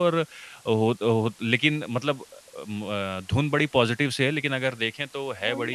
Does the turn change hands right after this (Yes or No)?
Yes